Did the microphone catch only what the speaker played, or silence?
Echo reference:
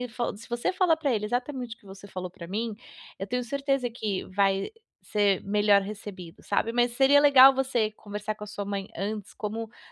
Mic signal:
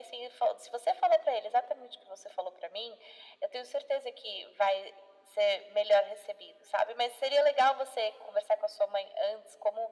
Yes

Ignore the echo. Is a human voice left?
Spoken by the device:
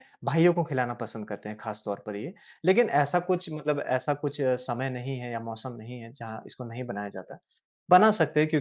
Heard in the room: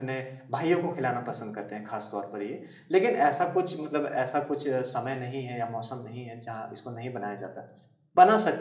No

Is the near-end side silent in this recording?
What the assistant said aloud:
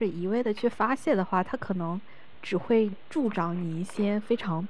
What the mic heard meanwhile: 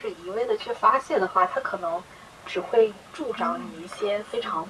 No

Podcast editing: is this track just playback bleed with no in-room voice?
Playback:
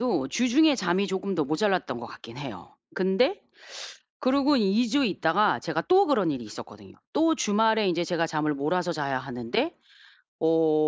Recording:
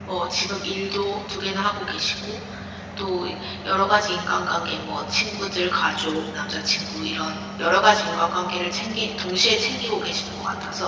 No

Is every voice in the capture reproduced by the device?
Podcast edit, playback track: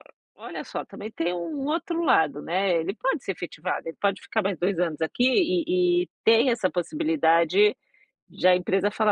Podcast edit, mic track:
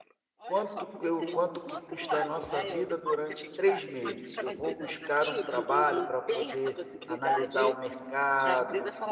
No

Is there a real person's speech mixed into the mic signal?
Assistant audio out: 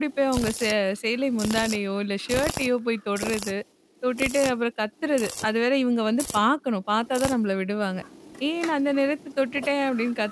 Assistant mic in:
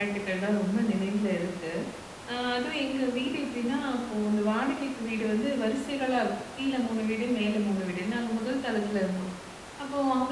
Yes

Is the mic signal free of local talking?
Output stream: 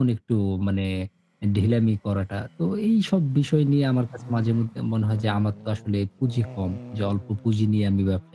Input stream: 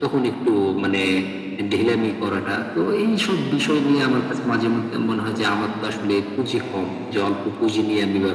Yes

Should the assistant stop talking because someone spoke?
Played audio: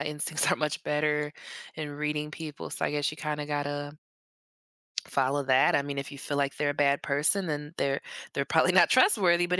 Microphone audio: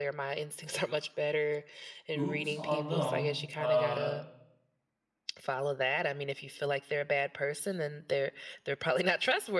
Yes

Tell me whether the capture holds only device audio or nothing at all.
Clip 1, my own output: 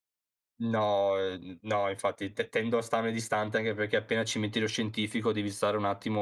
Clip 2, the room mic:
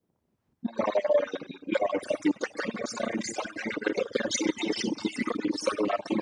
Yes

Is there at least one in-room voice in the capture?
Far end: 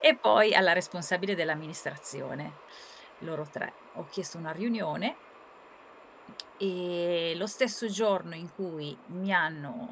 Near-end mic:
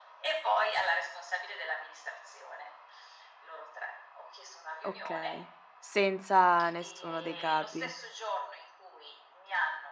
Yes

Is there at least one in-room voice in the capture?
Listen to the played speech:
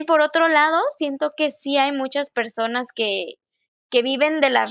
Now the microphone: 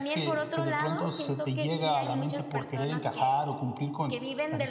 Yes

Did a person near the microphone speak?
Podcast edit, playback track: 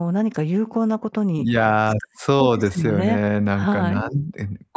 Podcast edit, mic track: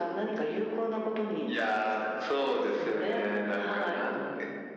No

